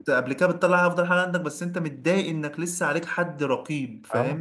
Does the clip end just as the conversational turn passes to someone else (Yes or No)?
Yes